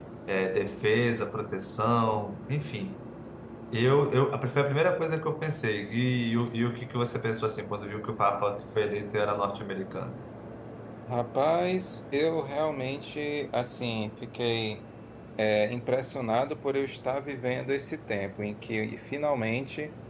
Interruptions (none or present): none